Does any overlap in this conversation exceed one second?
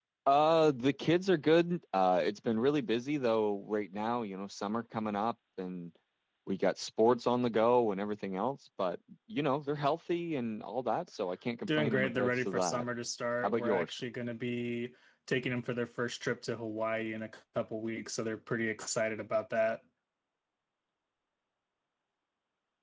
Yes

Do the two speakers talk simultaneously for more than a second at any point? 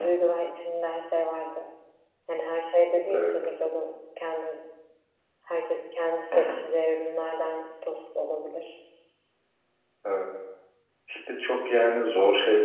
No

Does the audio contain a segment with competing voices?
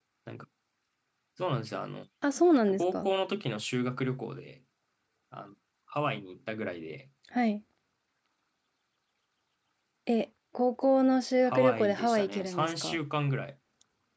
Yes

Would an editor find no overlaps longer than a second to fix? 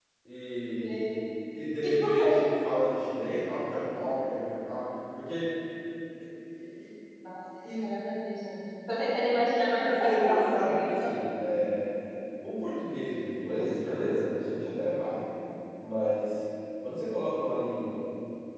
No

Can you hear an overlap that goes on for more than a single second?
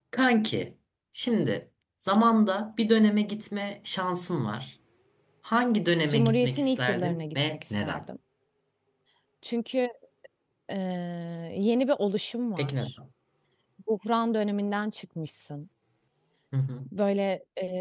Yes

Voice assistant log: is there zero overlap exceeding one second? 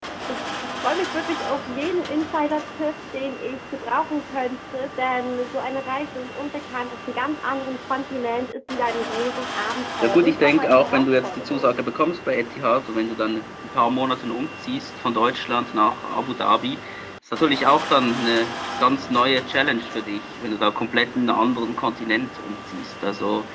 No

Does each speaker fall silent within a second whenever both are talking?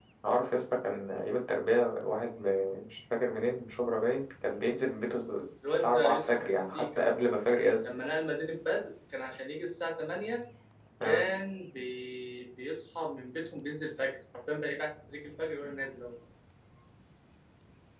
No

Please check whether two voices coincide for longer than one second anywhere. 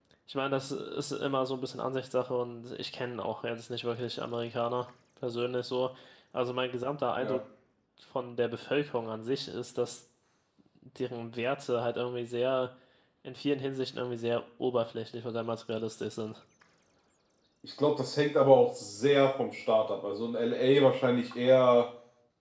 No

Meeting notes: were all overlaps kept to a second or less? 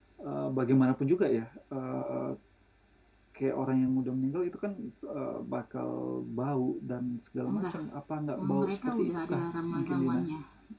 No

